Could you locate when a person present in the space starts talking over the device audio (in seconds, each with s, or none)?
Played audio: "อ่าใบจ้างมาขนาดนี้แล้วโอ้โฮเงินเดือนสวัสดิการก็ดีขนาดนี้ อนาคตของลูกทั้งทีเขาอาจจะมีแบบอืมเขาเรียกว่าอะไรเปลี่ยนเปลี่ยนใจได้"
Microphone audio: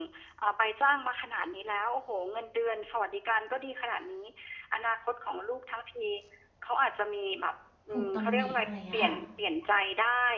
7.9 s